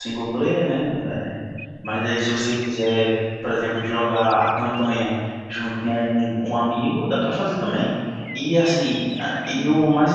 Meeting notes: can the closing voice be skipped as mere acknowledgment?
Yes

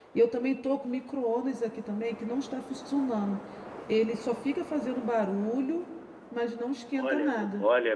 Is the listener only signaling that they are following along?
No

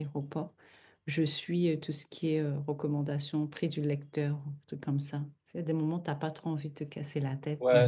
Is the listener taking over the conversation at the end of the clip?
Yes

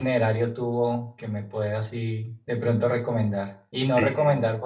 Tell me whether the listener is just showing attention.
Yes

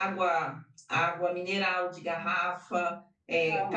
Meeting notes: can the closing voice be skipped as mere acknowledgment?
Yes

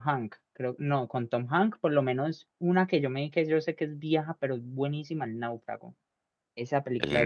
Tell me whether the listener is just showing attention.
Yes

